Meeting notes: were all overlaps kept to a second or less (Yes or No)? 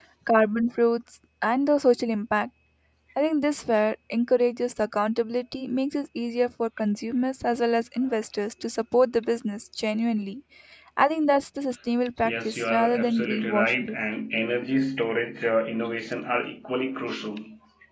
No